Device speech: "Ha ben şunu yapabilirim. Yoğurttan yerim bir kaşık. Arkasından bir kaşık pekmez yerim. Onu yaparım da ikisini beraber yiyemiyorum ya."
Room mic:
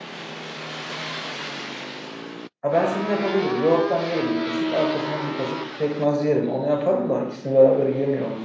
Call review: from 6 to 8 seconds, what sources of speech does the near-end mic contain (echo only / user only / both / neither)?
echo only